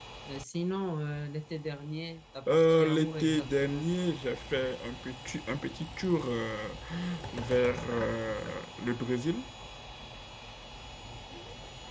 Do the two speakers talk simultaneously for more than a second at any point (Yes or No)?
Yes